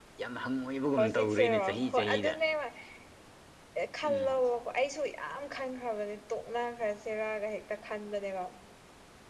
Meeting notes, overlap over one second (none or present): present